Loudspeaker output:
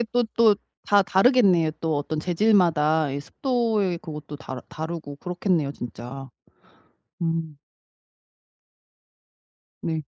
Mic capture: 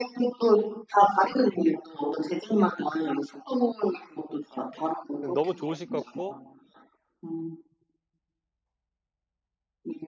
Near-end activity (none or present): present